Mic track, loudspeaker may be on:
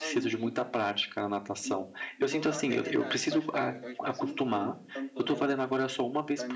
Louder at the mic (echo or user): user